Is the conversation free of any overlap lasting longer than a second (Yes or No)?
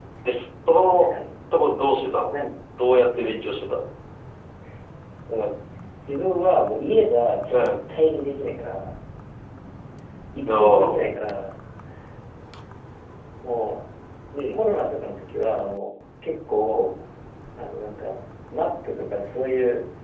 Yes